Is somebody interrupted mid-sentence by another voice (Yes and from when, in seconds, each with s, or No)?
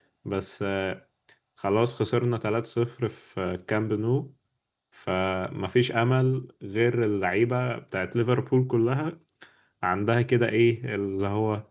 No